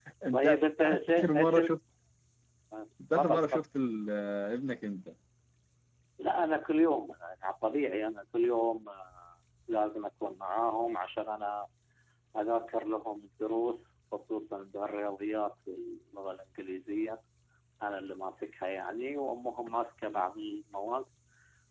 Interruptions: present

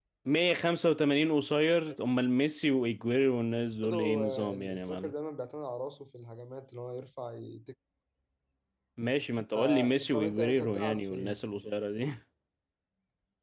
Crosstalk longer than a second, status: present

